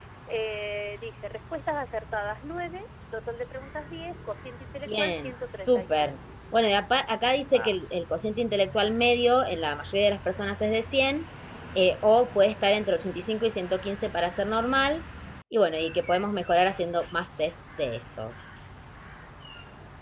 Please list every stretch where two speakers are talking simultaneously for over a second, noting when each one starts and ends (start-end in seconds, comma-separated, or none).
4.9-6.2